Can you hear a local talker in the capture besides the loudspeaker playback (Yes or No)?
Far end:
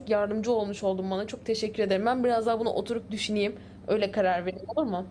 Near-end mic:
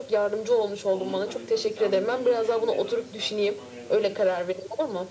Yes